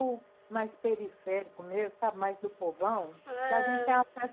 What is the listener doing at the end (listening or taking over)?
listening